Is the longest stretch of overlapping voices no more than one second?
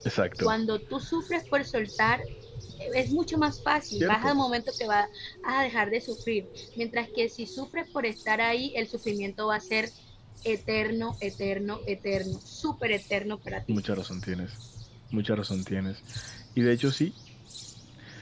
Yes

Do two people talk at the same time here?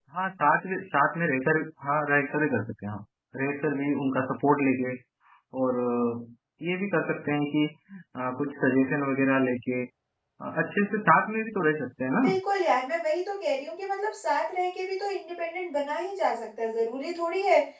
No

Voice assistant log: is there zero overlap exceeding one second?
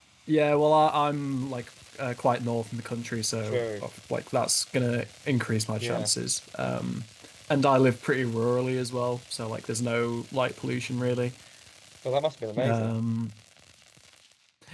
Yes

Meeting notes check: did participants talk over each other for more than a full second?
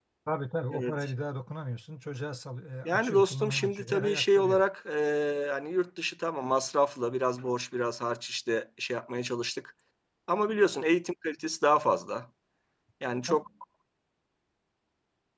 Yes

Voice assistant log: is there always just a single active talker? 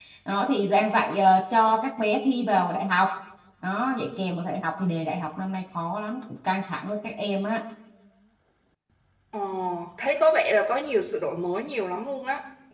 Yes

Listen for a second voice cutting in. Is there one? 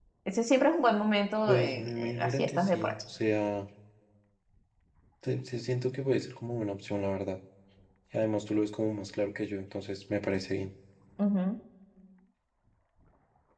Yes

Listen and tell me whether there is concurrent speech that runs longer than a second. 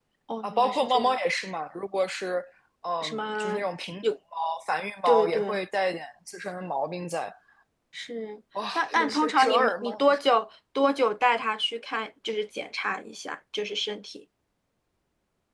Yes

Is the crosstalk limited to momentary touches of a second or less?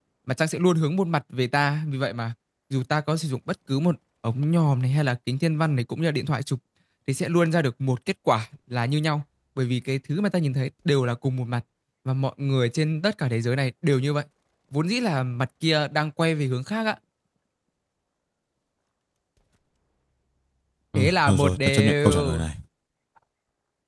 No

